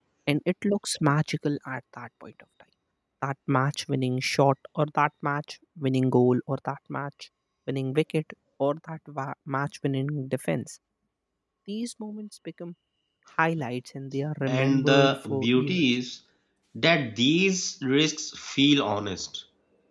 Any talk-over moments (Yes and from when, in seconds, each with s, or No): Yes, from 14.5 s